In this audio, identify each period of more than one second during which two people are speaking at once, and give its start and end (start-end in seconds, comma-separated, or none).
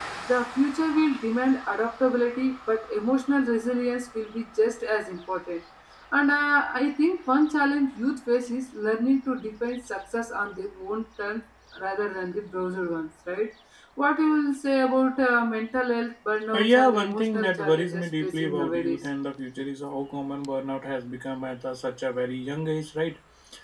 16.5-19.0